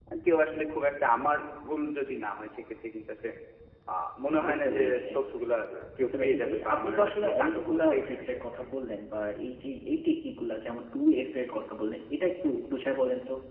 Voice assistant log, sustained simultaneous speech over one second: present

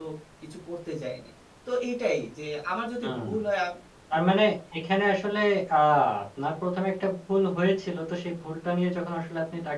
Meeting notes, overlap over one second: none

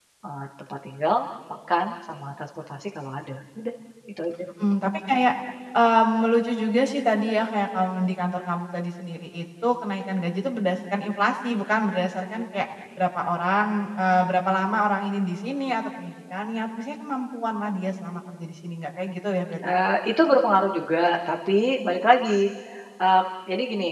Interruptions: none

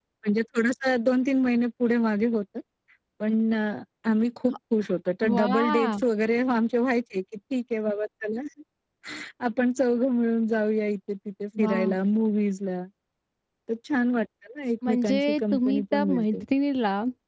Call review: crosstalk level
present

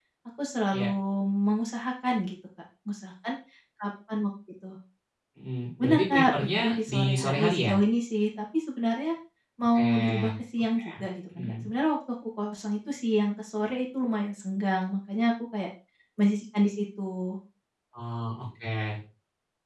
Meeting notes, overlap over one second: present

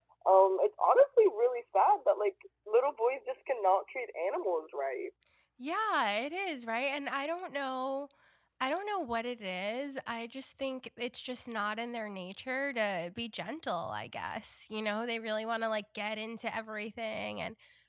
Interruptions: none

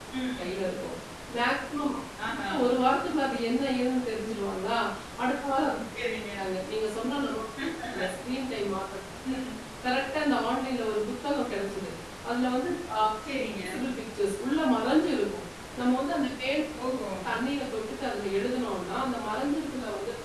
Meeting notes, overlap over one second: none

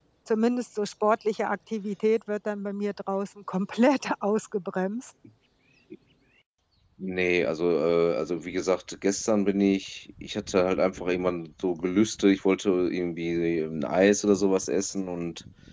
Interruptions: none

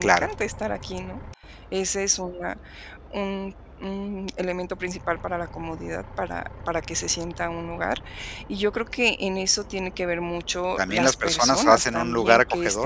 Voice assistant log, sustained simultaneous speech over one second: present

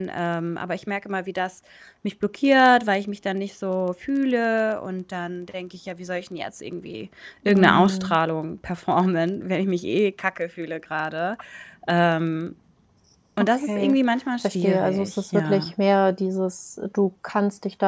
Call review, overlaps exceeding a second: present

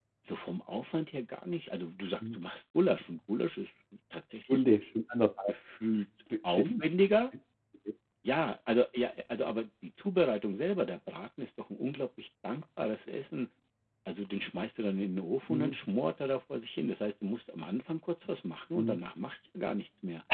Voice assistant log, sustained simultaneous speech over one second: none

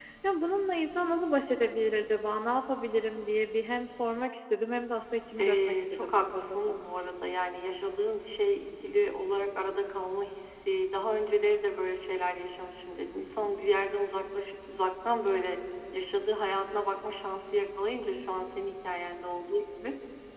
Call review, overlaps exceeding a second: present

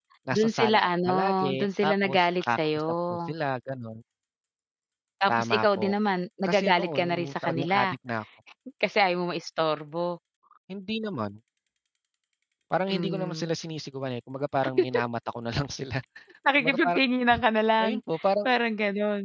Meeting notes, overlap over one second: present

